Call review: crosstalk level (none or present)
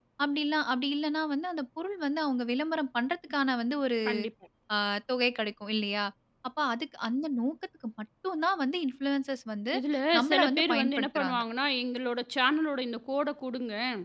present